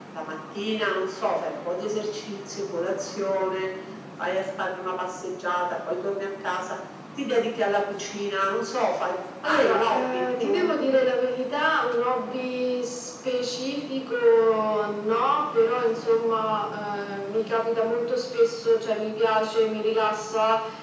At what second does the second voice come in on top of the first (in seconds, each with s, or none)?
9.4 s